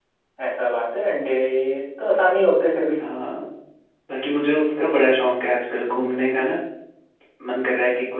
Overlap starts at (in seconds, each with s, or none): none